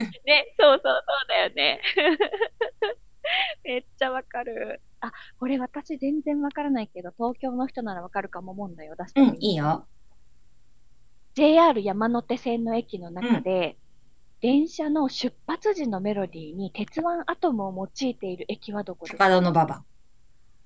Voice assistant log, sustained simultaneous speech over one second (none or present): none